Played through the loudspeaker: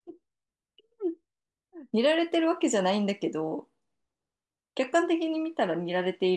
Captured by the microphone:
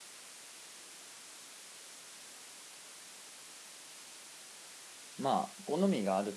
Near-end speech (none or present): present